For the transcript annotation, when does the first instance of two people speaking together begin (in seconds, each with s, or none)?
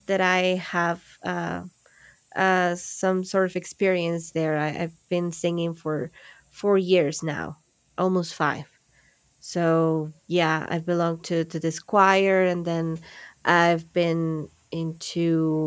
none